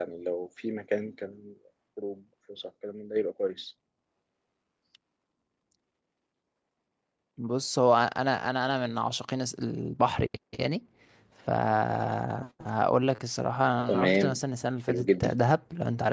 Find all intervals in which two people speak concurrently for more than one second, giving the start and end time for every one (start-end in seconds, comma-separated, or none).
none